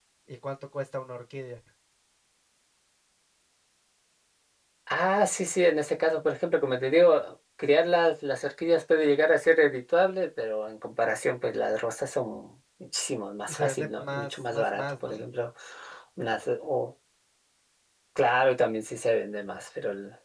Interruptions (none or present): present